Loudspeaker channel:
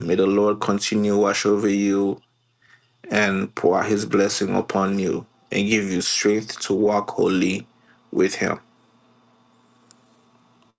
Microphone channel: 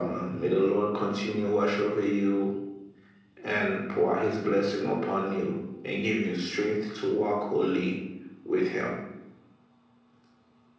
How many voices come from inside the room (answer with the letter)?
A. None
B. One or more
A